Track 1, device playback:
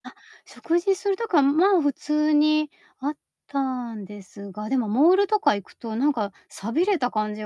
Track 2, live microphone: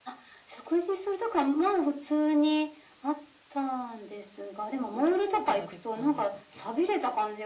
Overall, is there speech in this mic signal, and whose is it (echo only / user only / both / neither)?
both